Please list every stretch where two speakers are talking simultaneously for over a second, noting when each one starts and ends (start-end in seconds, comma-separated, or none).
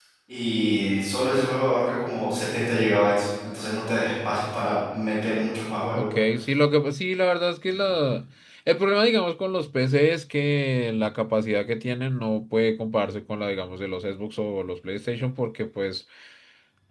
none